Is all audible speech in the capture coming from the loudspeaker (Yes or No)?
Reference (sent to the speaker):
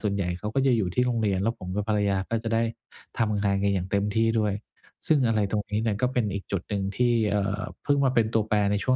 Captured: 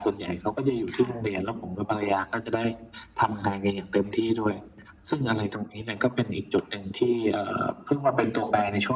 No